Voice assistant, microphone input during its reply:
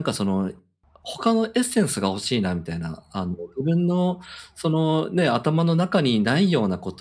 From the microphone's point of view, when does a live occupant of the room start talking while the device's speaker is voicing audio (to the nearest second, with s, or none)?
none